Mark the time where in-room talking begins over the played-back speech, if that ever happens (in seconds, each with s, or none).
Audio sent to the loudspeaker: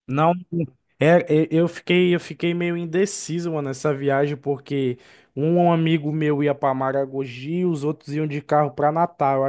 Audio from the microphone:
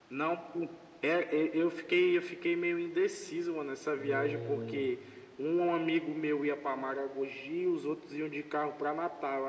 3.9 s